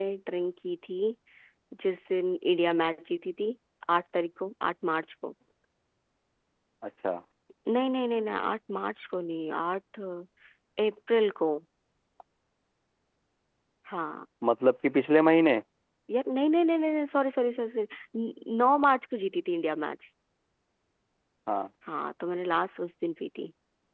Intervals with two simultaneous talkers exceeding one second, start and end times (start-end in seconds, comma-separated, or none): none